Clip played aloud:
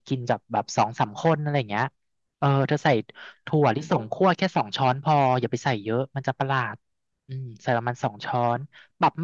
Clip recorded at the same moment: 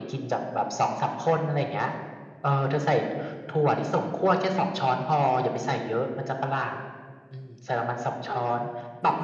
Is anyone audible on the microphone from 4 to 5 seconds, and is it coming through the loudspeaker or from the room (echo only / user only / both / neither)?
echo only